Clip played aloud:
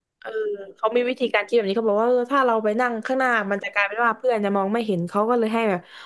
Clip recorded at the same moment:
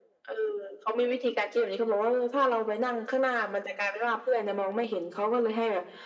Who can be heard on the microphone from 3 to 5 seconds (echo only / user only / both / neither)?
echo only